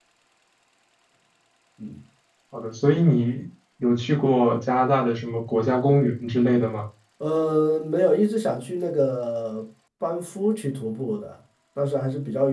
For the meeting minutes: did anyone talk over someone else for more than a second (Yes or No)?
No